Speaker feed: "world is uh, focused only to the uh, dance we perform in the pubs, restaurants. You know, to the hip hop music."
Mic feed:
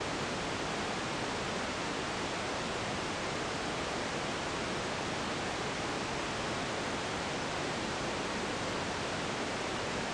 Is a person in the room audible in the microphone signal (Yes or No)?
No